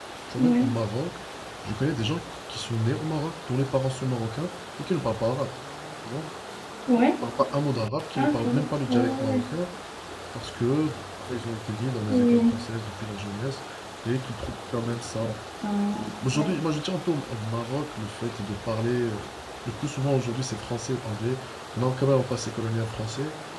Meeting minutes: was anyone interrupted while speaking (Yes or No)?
Yes